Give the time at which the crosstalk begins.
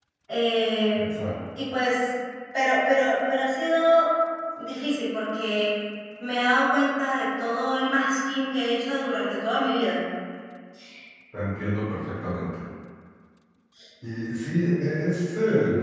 none

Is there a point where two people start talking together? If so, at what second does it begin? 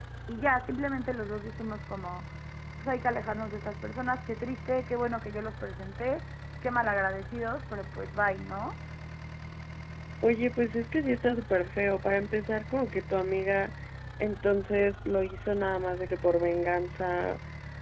none

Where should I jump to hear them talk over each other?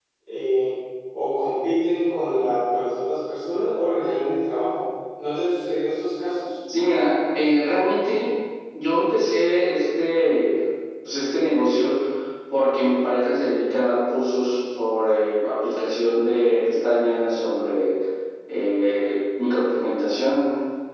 none

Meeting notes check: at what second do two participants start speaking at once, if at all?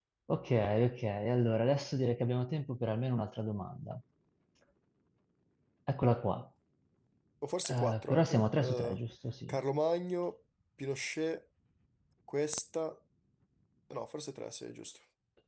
7.7 s

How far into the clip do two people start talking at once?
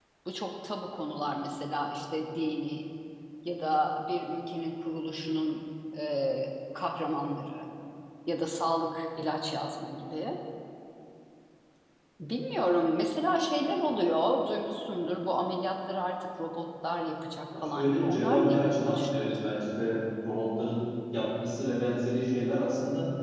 17.8 s

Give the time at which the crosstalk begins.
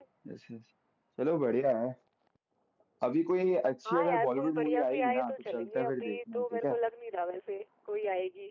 3.9 s

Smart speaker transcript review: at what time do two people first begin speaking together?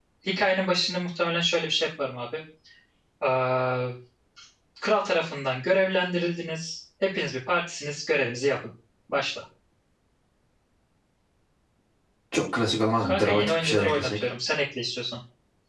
13.0 s

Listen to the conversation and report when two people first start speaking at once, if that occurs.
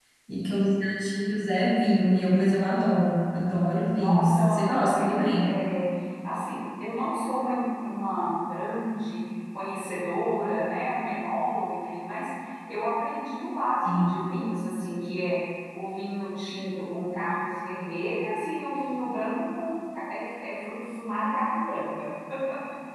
4.0 s

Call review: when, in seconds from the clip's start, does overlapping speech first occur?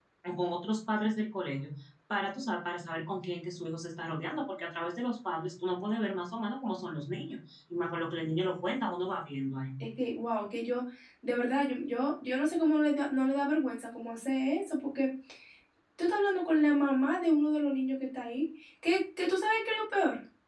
none

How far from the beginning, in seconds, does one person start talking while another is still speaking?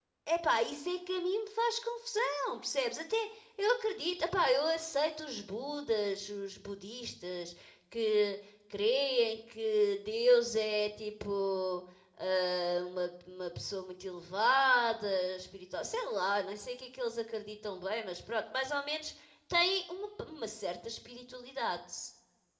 none

